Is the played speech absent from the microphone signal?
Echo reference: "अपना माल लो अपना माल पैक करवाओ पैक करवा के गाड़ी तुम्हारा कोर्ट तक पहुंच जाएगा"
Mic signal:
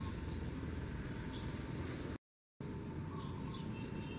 Yes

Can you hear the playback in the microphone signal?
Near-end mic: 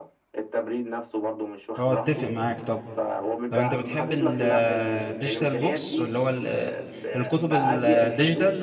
Yes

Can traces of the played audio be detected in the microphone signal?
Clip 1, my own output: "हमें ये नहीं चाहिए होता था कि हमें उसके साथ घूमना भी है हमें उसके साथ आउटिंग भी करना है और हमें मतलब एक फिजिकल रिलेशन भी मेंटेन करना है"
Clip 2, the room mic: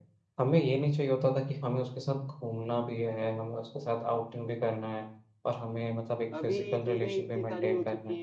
Yes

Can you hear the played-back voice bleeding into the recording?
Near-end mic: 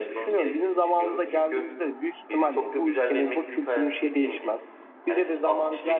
Yes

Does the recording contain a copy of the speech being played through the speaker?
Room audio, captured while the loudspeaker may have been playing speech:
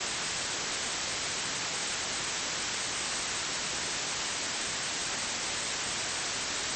No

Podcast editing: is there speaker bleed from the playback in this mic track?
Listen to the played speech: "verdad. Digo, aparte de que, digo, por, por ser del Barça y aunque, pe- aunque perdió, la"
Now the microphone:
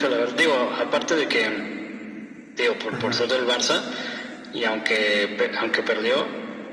Yes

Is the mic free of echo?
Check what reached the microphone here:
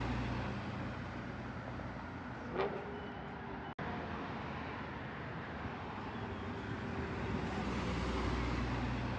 Yes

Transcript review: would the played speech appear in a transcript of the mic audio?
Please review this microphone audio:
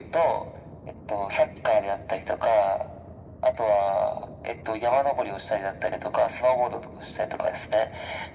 Yes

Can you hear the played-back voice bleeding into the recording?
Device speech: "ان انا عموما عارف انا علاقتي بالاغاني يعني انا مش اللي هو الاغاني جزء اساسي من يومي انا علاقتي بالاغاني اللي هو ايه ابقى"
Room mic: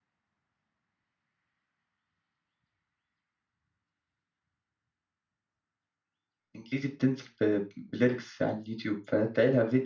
No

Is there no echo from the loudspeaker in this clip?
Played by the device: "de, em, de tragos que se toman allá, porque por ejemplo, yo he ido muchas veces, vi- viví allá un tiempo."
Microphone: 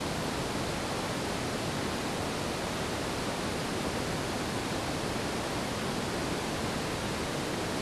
Yes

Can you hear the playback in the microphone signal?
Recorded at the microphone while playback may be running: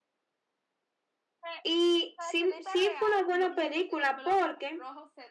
Yes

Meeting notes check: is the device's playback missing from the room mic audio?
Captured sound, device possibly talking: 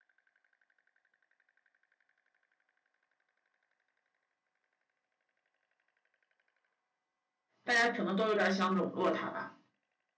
Yes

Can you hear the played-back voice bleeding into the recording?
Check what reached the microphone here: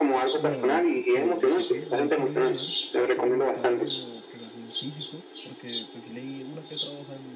Yes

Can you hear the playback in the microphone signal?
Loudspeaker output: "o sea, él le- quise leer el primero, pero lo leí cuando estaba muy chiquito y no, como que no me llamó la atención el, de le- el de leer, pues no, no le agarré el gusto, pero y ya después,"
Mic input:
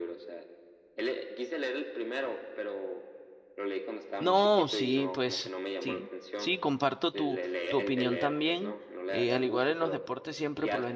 Yes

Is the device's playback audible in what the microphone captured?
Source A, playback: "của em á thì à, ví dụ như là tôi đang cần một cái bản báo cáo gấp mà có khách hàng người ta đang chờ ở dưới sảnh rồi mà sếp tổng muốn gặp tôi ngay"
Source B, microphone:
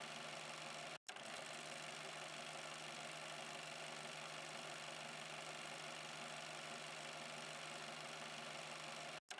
No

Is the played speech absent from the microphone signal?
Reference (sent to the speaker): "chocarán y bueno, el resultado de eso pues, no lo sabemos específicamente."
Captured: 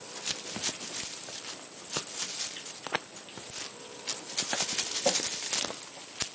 Yes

